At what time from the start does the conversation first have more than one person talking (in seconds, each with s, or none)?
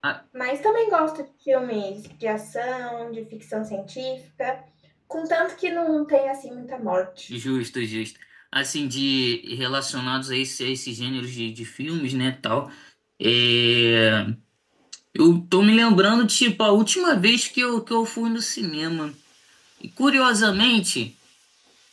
none